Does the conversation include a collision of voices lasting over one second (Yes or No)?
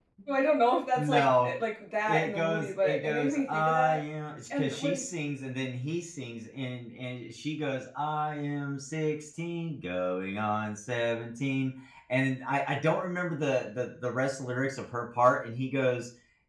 Yes